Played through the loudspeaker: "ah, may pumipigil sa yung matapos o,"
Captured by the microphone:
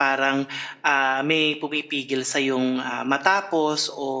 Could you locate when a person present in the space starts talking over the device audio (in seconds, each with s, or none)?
none